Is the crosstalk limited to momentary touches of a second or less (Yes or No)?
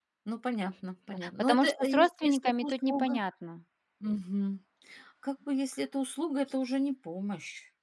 No